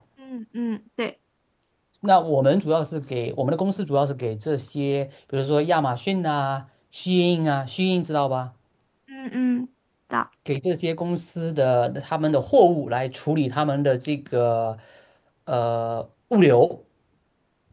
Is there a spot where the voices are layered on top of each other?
No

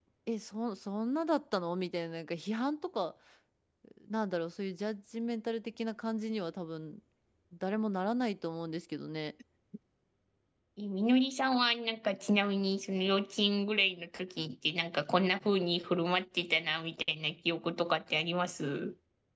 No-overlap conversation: Yes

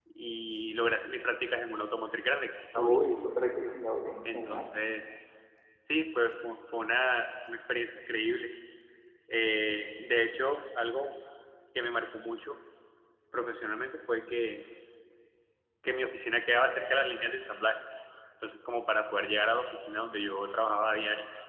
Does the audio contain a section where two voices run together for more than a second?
No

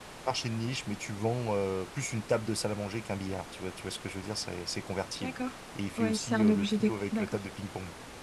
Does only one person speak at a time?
No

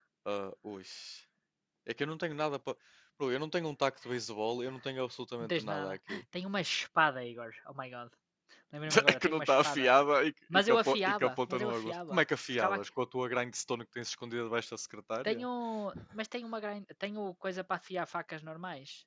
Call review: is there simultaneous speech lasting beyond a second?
Yes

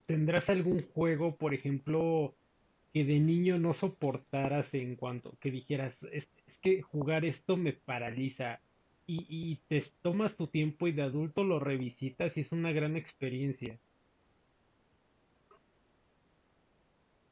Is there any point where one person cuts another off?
No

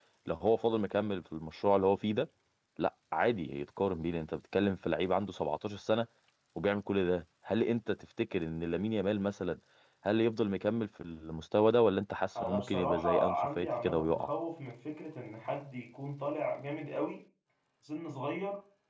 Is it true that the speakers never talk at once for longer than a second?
No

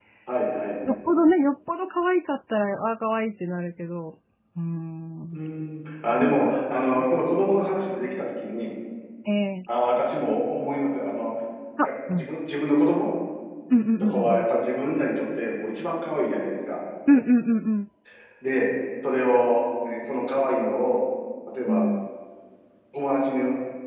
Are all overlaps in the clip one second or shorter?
Yes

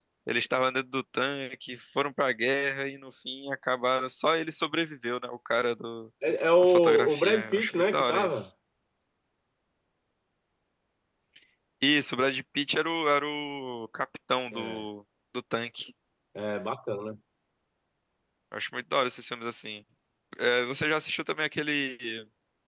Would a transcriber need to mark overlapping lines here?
Yes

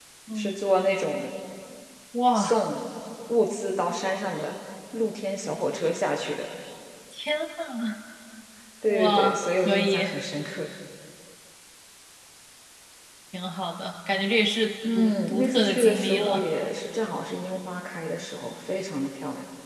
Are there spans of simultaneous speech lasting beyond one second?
Yes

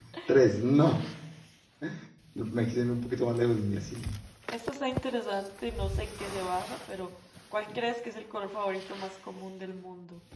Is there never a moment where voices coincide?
Yes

